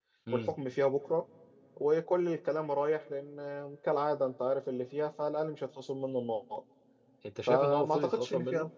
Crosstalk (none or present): present